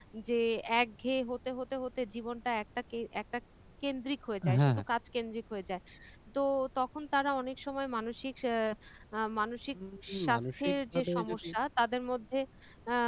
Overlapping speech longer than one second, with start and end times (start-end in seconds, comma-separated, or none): 10.2-11.5